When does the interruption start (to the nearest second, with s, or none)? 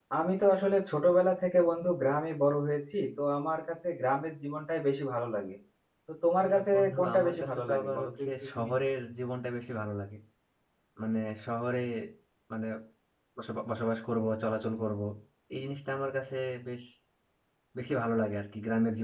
6 s